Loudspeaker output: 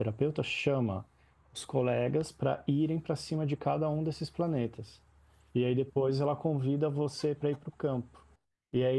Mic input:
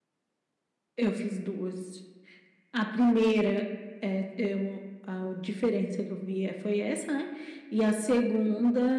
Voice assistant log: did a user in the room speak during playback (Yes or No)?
Yes